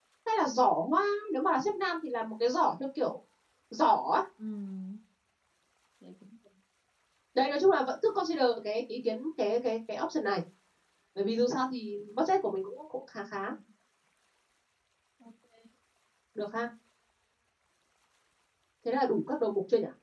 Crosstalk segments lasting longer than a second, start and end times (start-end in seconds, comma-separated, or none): none